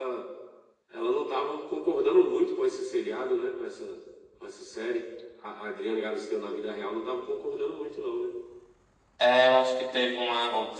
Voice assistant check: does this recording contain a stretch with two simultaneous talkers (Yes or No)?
No